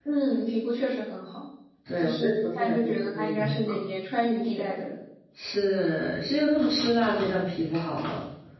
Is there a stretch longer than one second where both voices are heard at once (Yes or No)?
Yes